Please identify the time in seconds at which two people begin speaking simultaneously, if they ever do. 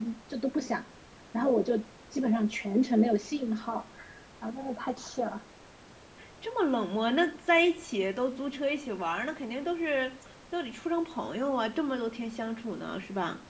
none

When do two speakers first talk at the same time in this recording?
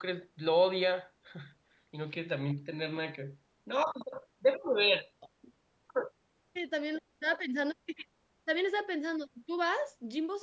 none

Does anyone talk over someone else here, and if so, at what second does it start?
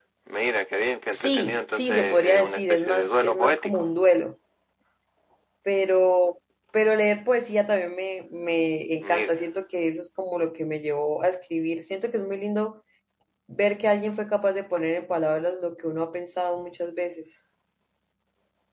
1.1 s

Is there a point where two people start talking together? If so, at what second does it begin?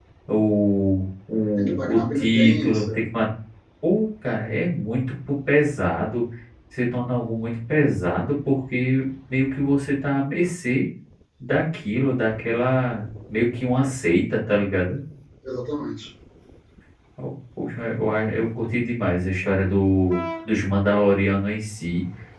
1.6 s

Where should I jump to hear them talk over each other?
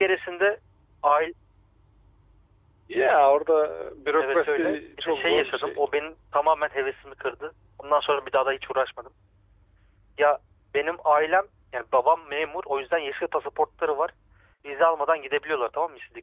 4.2 s

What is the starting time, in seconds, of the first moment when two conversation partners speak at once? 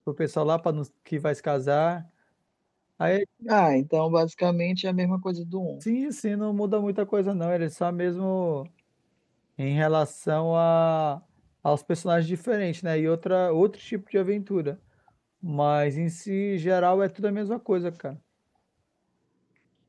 none

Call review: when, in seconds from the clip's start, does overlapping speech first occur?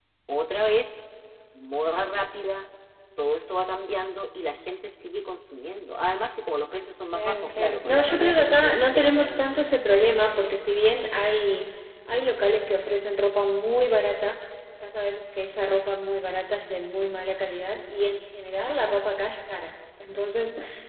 7.1 s

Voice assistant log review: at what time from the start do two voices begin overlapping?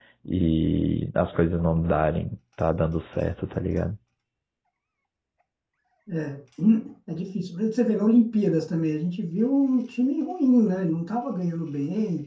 none

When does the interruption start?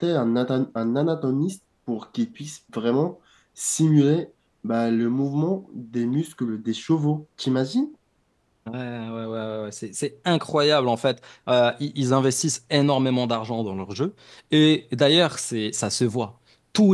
none

